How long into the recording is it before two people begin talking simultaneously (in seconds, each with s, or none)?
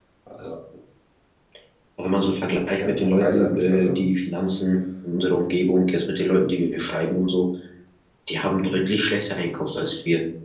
2.8 s